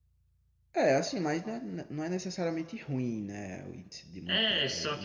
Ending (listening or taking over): taking over